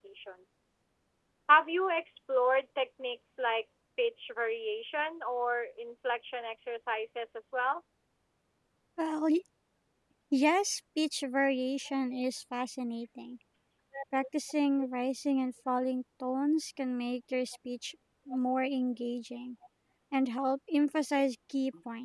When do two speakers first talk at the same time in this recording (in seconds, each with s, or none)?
none